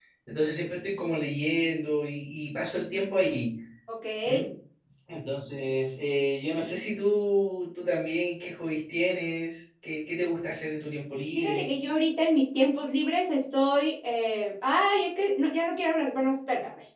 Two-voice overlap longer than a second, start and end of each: none

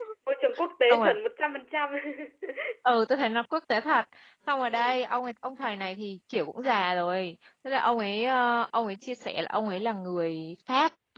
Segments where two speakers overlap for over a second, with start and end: none

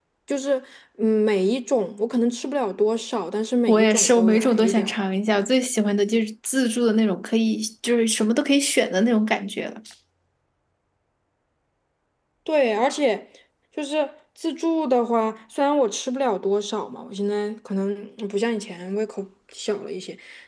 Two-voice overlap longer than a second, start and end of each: 3.7-5.0

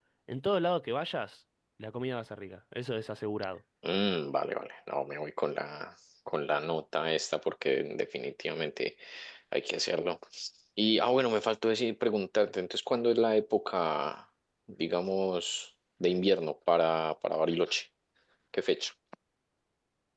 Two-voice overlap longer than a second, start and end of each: none

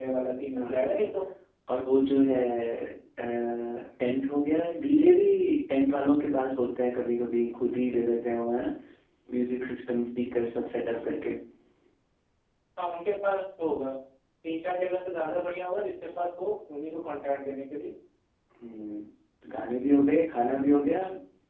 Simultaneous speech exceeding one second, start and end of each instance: none

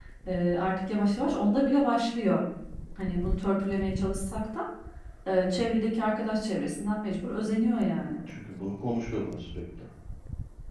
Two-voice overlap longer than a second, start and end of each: none

